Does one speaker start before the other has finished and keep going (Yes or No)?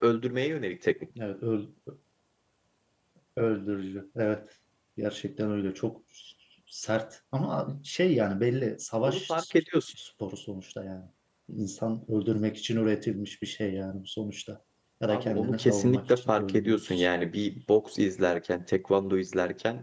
Yes